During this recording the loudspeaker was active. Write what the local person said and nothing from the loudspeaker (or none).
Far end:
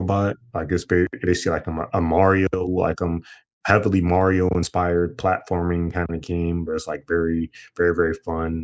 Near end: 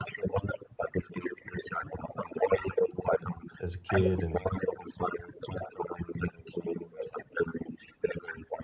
as a kid and